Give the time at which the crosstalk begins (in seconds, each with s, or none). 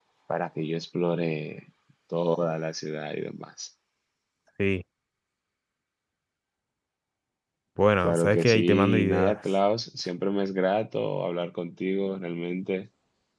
8.0 s